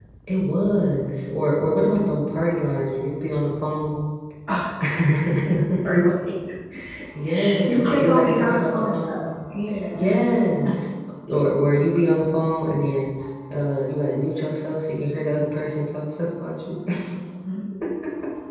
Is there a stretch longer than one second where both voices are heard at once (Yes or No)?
Yes